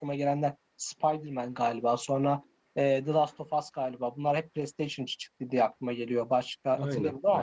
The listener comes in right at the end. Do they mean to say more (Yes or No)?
No